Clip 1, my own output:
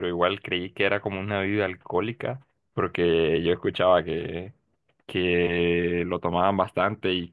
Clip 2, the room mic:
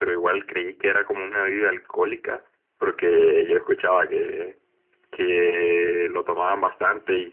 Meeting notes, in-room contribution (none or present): none